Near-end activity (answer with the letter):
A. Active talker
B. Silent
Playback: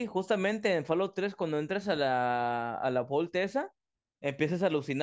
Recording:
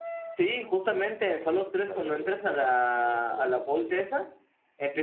A